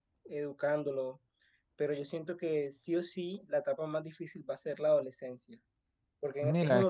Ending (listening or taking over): listening